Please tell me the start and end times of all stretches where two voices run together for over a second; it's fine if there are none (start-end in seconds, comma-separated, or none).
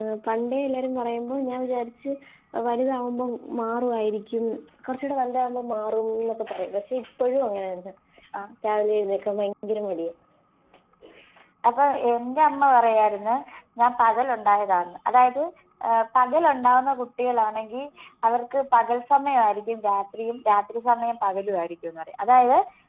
none